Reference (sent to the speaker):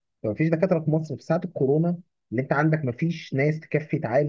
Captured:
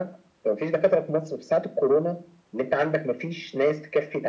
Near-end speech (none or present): none